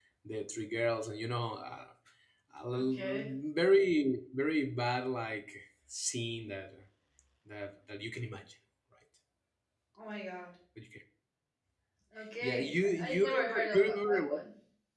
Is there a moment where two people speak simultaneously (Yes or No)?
Yes